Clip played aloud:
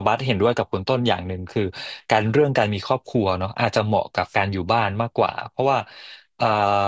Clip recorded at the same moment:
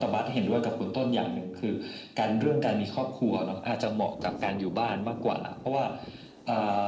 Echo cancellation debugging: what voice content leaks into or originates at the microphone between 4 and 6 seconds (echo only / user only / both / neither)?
echo only